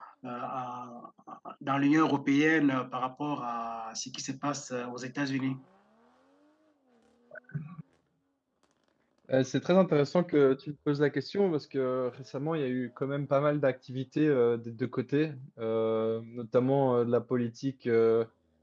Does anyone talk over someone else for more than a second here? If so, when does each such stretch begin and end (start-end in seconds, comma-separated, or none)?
none